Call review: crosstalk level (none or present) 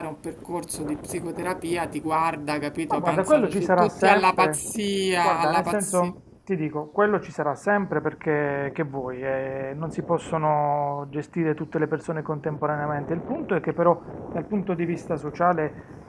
present